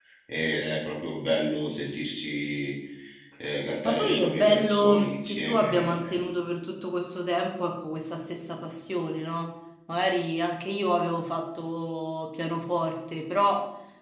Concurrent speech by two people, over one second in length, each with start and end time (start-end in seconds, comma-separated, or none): 3.8-6.2